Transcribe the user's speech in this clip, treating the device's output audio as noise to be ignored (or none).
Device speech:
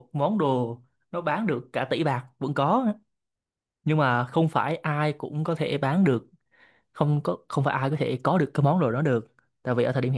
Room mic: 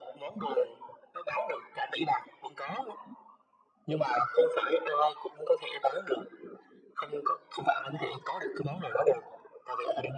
none